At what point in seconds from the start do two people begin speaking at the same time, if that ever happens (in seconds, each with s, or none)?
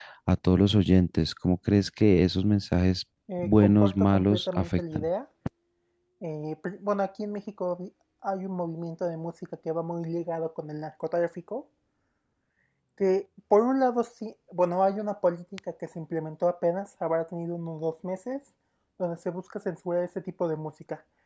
3.3 s